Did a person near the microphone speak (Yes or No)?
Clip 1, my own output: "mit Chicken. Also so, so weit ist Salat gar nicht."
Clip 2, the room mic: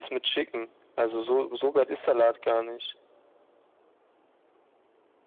No